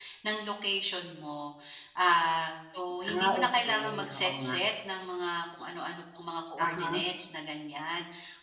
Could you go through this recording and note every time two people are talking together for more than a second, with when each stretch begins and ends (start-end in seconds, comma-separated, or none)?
3.1-4.5